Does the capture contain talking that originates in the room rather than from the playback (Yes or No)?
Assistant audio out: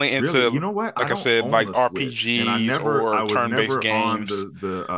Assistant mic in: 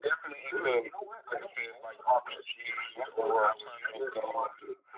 No